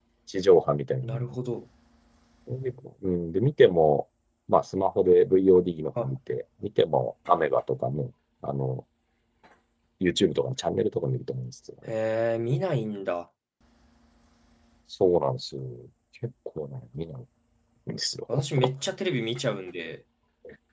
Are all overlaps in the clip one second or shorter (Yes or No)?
Yes